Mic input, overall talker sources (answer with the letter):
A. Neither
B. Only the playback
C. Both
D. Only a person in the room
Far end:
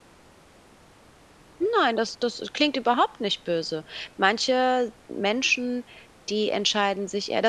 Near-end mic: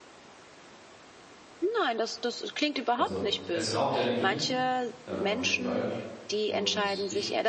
C